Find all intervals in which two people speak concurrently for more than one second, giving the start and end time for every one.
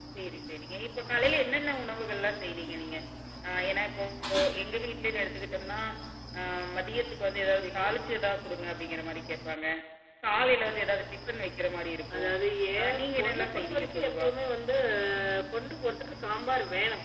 12.8-14.3

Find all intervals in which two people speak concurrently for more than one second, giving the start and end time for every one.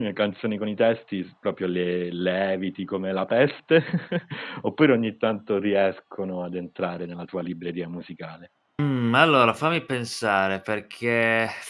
none

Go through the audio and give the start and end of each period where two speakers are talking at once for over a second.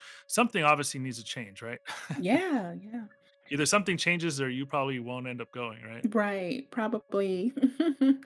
none

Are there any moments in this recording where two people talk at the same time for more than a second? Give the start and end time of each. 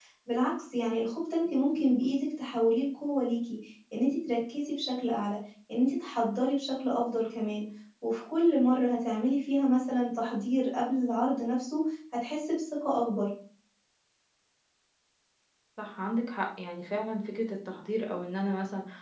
none

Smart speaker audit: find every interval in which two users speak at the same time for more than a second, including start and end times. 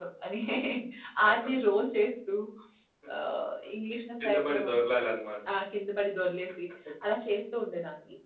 none

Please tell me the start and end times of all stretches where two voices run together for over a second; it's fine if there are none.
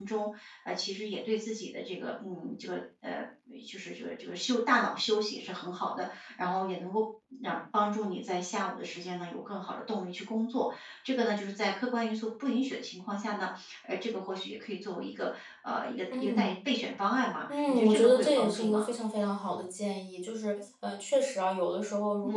17.5-18.9

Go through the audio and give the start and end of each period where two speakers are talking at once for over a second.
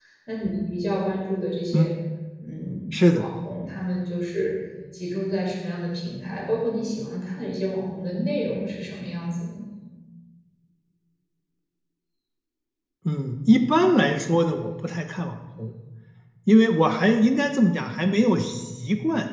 none

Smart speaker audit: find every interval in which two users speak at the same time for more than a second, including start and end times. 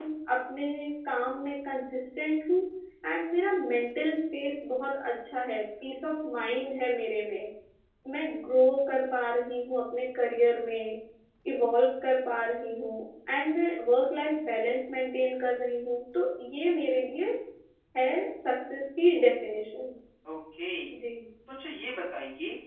none

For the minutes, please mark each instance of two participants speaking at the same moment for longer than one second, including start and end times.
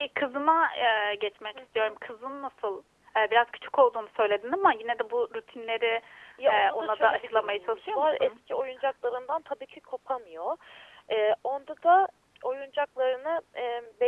6.5-8.4

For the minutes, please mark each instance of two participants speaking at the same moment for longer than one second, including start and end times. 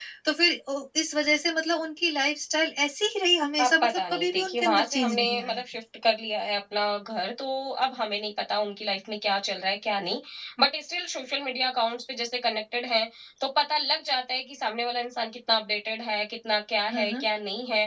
3.6-5.6

